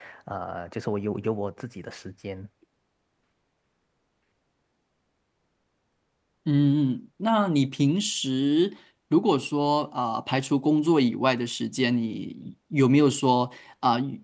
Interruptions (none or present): none